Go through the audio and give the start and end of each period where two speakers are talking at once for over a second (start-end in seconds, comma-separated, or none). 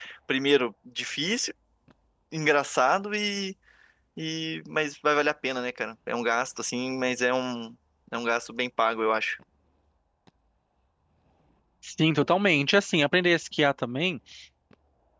none